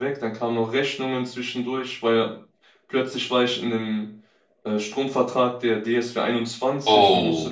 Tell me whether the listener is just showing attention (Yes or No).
Yes